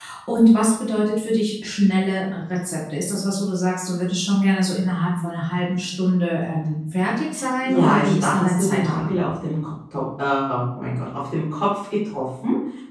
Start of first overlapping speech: 8 s

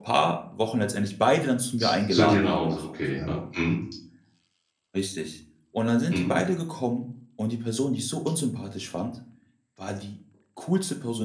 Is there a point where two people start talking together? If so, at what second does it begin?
2 s

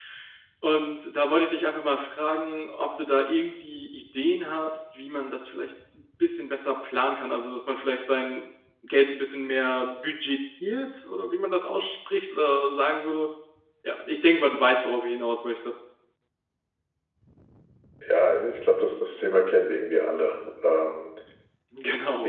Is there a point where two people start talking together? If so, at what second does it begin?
none

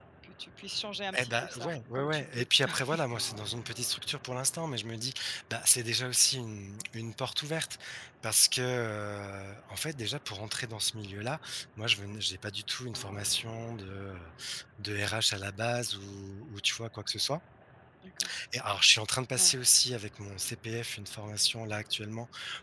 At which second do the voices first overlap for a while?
1 s

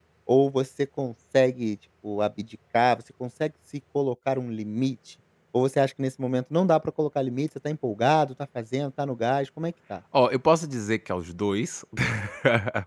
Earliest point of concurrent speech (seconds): none

